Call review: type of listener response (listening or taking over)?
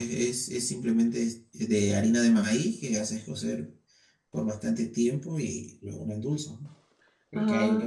listening